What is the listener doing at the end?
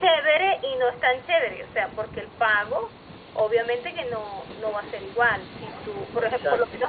listening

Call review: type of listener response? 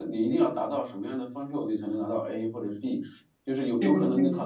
listening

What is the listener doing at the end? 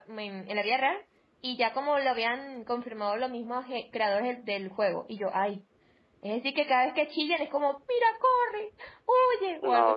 taking over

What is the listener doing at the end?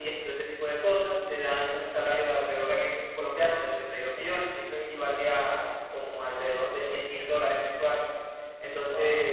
listening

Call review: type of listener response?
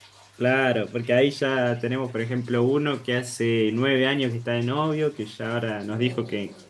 listening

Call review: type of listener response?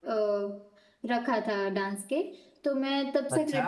listening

